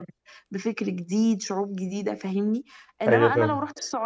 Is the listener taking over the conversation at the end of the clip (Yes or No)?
No